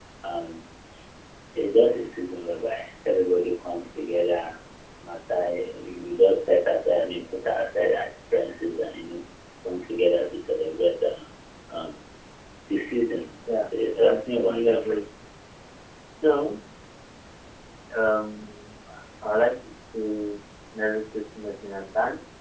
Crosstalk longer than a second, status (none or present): present